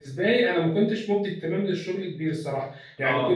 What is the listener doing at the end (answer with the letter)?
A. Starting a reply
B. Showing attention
B